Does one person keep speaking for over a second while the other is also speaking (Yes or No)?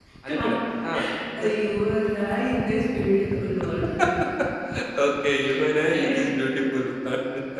No